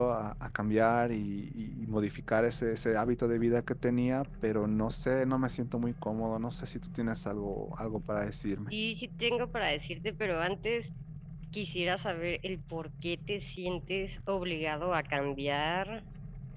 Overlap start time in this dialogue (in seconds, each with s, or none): none